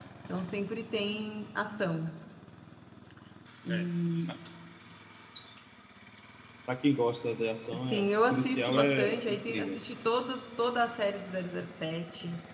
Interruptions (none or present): present